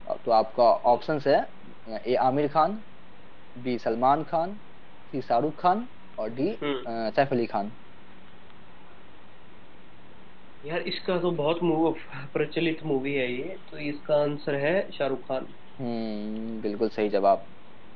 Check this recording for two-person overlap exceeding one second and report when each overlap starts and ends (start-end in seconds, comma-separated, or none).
none